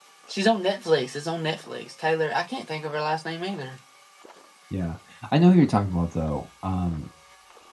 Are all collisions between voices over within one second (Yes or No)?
Yes